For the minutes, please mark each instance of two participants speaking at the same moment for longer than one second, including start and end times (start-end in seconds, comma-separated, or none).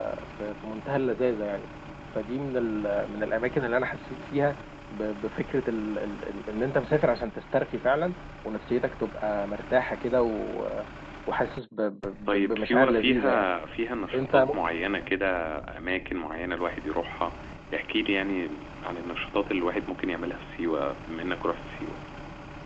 12.3-13.5